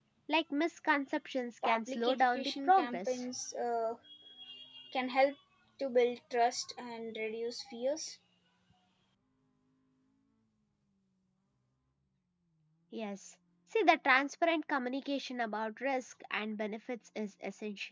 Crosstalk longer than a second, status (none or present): present